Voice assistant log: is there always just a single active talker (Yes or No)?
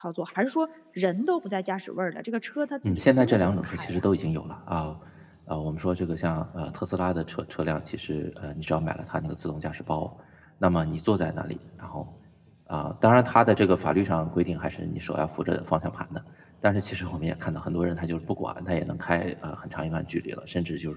No